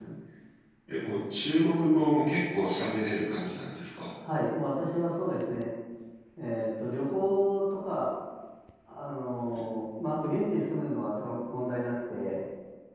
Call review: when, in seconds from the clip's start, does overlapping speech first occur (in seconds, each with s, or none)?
none